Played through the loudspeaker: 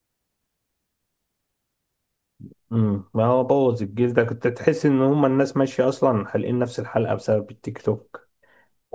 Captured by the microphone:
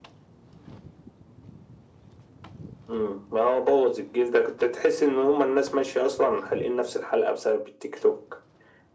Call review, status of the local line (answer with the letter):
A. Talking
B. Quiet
B